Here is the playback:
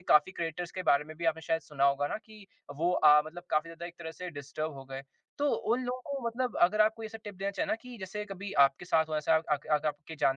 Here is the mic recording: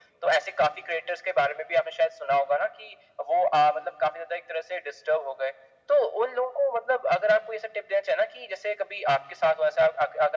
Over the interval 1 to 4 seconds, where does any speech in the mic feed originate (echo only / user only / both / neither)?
echo only